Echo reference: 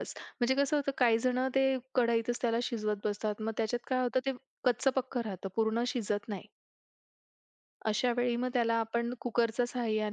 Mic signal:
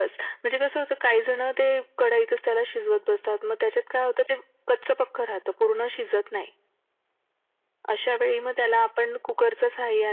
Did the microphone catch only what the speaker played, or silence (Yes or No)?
Yes